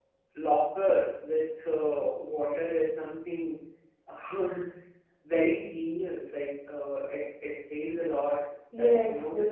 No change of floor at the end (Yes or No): No